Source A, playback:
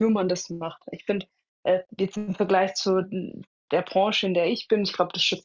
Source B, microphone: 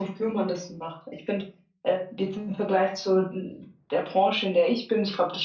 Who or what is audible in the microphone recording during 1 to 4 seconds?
echo only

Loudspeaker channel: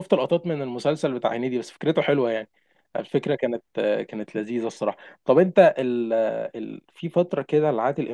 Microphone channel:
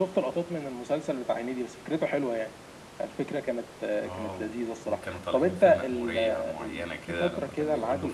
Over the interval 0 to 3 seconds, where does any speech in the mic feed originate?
echo only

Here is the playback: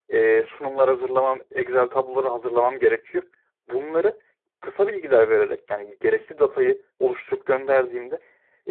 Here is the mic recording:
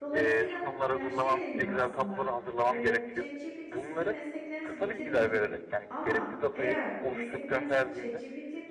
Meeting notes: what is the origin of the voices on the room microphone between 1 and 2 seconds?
both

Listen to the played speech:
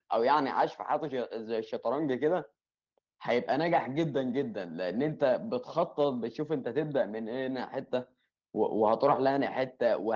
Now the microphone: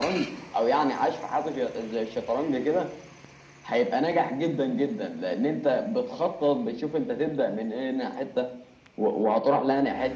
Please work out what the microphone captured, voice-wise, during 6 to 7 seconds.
echo only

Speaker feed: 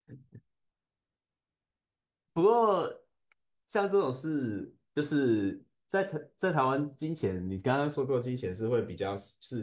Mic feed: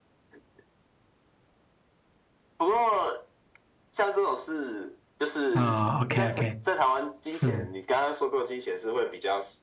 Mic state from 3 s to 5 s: echo only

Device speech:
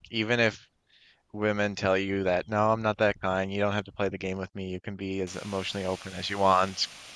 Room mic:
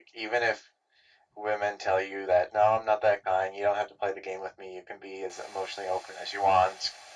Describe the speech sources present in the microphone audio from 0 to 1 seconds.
echo only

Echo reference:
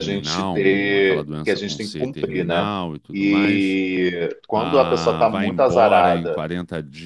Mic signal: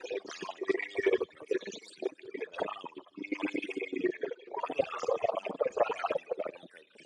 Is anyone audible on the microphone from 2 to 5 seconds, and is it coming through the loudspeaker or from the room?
echo only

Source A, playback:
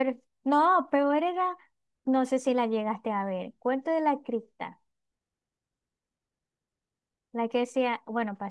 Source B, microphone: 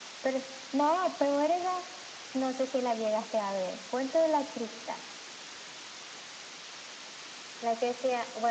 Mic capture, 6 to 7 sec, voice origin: neither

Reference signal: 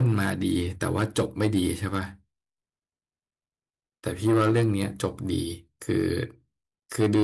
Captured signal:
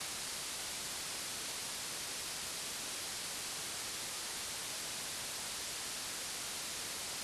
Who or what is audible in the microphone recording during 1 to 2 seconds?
neither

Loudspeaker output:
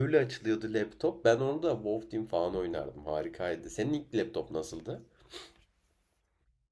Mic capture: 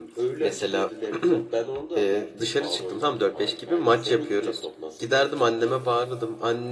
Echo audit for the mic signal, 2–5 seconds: both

